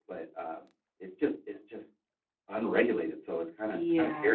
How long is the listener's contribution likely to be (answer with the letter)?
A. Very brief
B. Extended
B